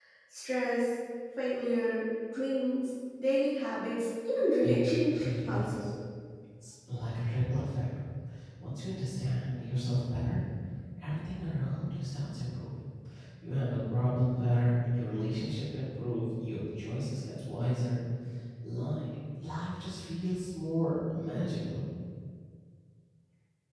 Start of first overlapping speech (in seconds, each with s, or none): 4.6 s